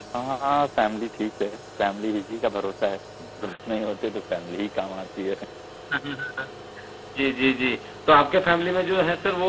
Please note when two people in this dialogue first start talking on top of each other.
none

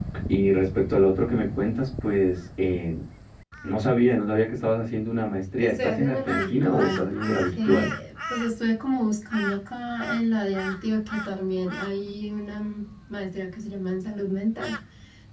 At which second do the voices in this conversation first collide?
5.6 s

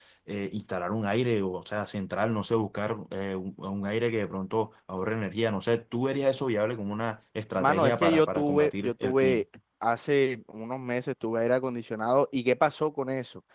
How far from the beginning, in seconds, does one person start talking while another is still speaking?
7.6 s

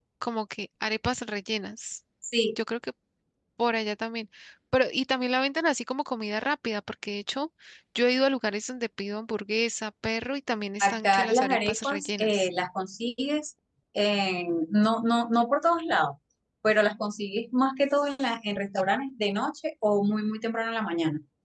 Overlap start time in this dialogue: 10.8 s

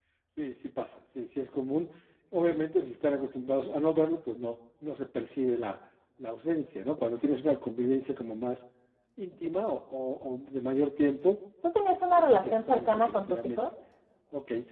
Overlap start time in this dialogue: 12.2 s

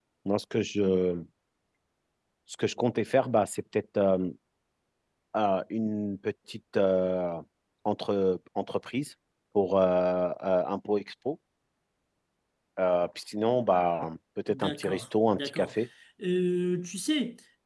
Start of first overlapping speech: 14.5 s

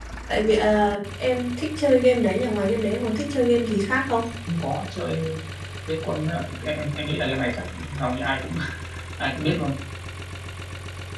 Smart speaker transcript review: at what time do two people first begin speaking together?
none

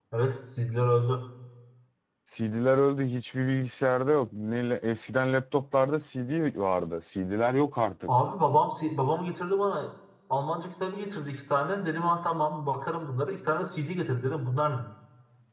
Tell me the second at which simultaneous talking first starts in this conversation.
none

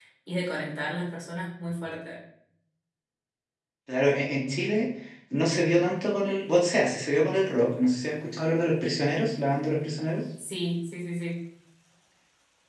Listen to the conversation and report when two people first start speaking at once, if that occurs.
none

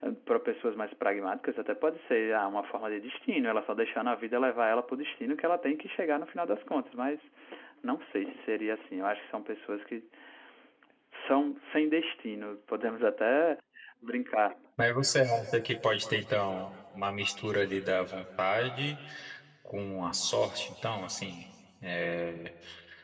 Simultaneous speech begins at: none

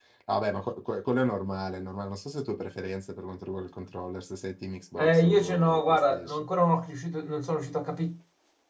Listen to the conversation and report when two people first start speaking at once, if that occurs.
5.0 s

